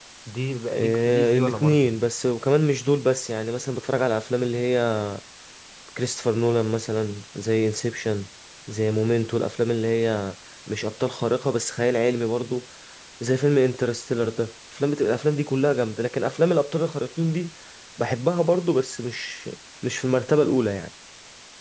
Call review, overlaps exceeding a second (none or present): present